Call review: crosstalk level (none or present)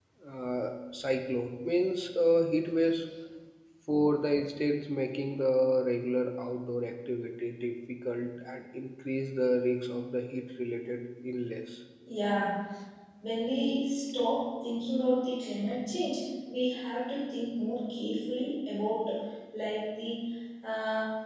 none